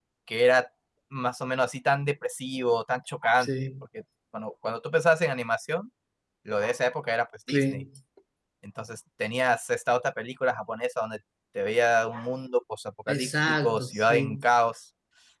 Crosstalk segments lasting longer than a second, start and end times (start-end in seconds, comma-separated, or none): 13.1-14.4